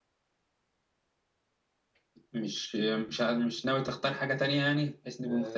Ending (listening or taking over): taking over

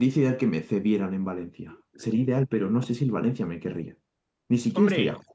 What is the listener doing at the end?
taking over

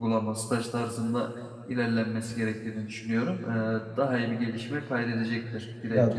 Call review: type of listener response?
taking over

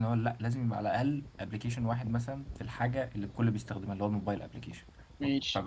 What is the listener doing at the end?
listening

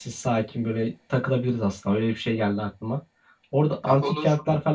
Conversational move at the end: listening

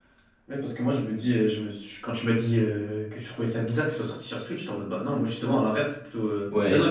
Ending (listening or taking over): taking over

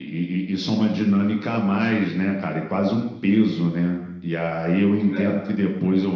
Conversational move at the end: listening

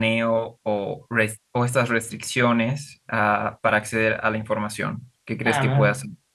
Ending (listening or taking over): taking over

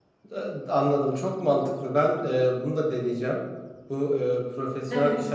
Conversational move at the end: listening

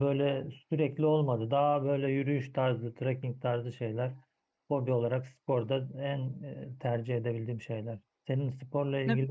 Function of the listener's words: taking over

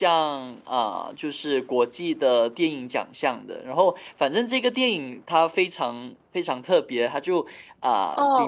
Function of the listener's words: taking over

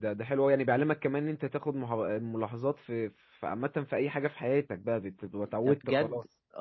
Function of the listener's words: taking over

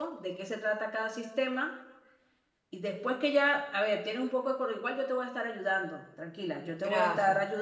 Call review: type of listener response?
listening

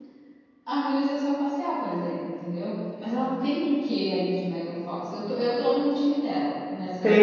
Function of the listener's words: taking over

